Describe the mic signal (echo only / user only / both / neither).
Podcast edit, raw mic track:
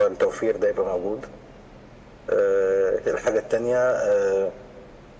echo only